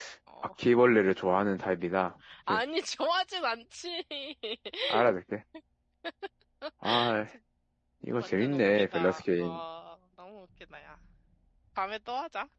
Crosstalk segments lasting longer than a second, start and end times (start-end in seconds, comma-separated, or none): 8.2-9.6